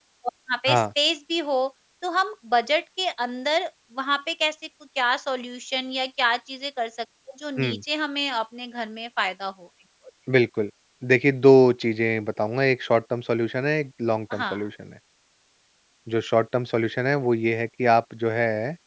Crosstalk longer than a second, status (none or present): none